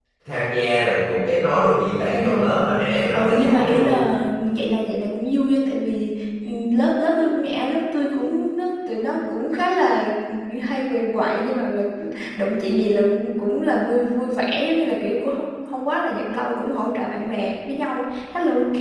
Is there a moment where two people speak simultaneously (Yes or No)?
Yes